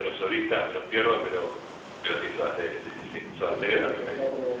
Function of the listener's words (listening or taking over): taking over